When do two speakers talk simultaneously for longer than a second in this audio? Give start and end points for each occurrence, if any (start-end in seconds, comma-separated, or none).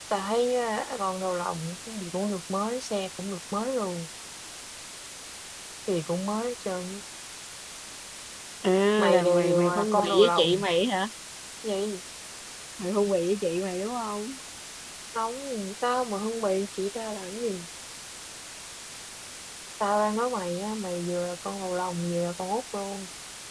9.0-10.6